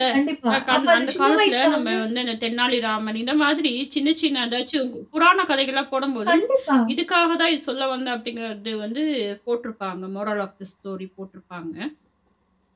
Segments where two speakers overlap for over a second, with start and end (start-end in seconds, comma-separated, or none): 0.5-2.0